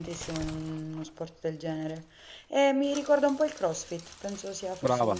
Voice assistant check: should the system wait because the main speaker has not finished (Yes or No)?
No